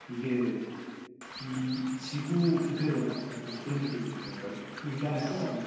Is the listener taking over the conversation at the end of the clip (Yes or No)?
No